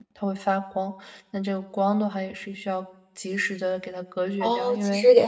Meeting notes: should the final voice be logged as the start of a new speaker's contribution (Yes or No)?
Yes